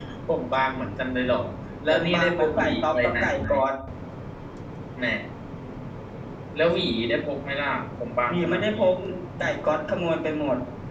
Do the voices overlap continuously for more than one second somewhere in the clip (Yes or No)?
Yes